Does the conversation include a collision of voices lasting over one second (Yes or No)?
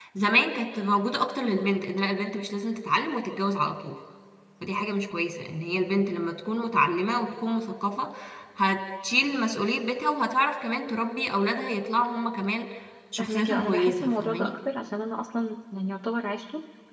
Yes